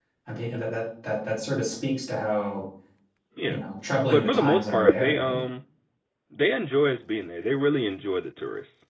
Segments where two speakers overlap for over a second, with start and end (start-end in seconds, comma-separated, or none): 4.1-5.4